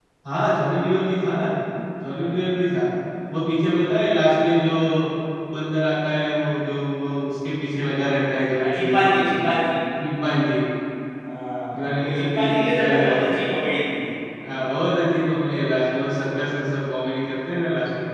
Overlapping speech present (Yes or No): Yes